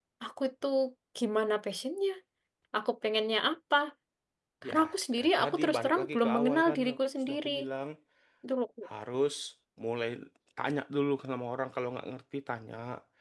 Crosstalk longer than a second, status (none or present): present